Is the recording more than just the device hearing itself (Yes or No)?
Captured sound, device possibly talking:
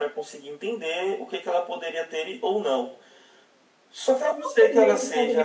Yes